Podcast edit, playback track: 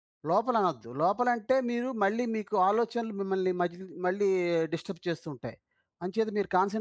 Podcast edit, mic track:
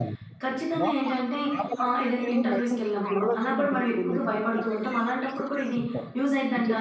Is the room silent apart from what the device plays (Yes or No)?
No